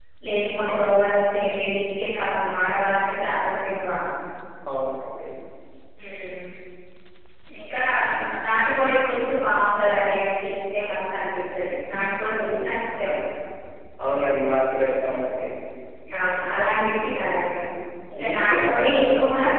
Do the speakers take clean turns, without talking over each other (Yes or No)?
No